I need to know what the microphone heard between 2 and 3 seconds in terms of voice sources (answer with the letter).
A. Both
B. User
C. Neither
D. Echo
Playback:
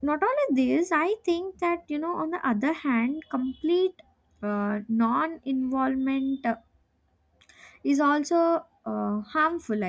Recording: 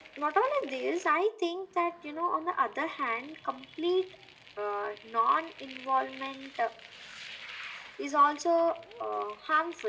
D